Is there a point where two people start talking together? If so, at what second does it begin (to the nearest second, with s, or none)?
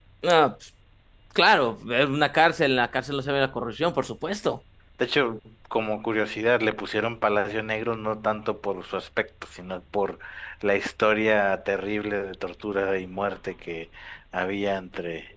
none